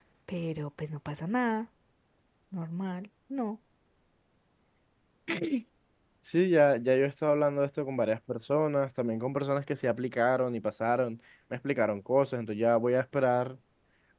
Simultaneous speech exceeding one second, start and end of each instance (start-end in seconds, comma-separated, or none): none